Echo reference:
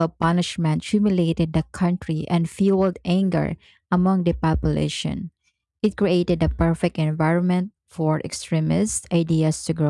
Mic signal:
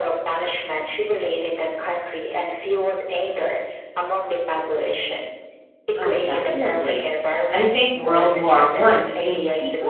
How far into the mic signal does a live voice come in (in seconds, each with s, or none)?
6.0 s